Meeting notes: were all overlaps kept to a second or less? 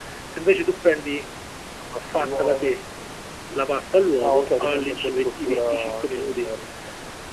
No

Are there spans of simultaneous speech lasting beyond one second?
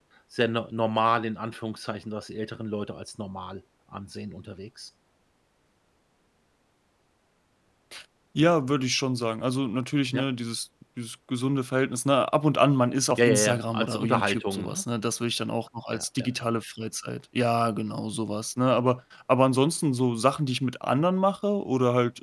Yes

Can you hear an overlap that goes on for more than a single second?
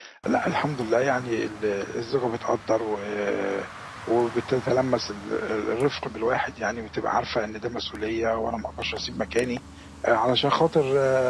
No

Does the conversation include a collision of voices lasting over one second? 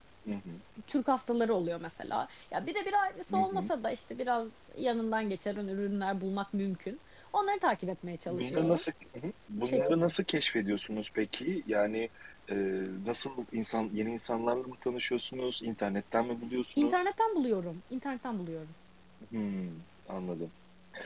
No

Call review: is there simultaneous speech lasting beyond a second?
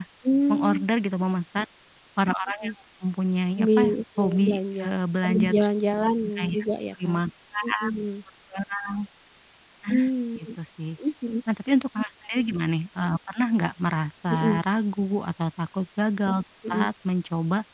Yes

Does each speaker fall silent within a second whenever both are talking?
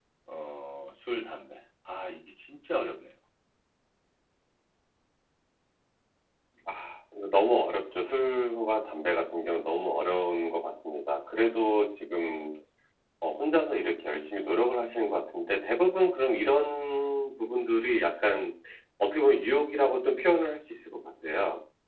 Yes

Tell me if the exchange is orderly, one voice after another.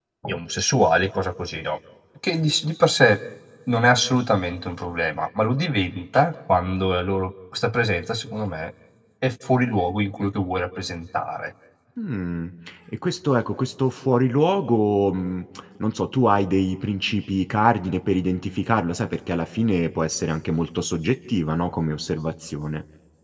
Yes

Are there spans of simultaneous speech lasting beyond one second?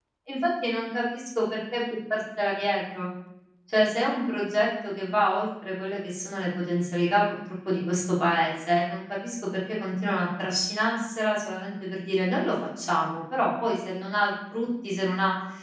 No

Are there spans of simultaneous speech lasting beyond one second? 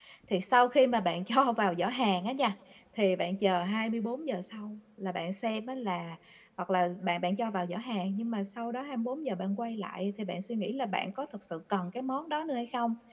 No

